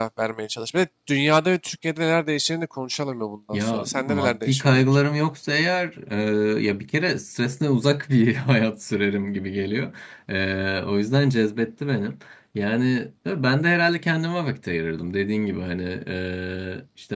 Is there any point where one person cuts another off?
Yes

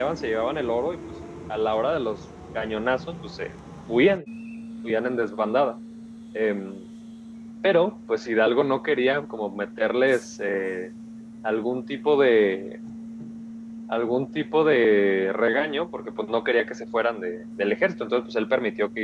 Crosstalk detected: No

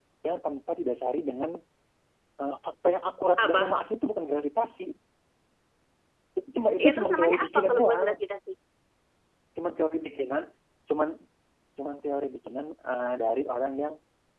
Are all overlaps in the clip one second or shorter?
No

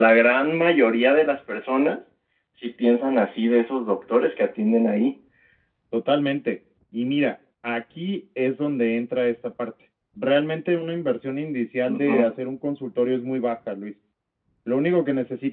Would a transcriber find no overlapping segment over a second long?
Yes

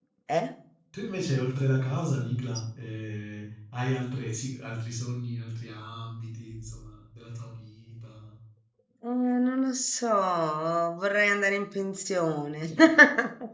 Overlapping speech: No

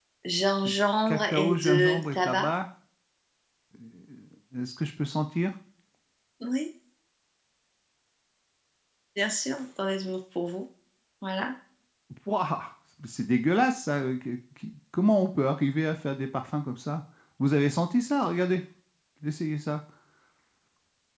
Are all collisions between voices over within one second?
No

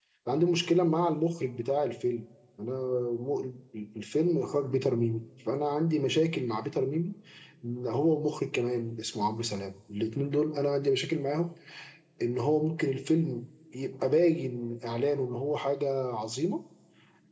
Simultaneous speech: No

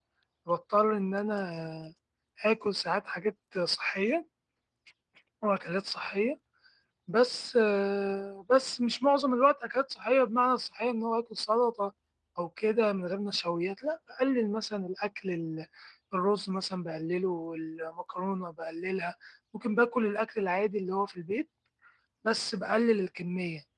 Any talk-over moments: No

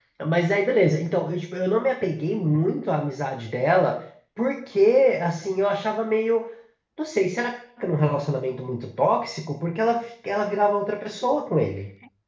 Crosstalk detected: No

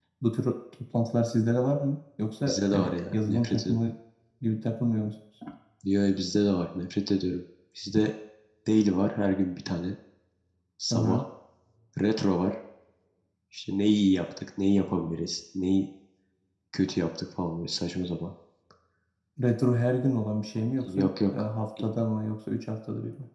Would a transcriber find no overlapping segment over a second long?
No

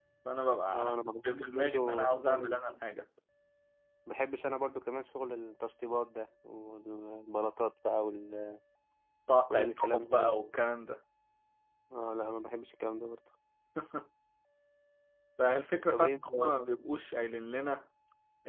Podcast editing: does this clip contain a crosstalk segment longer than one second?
Yes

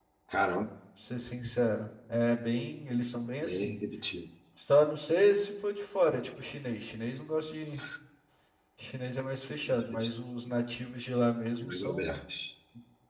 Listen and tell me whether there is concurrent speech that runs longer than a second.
No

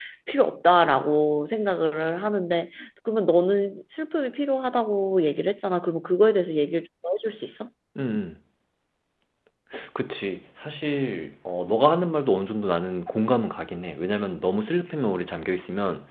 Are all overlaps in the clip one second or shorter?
Yes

